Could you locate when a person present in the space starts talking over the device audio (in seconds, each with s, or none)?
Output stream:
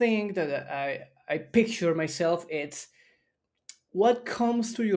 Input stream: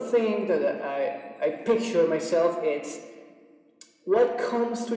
none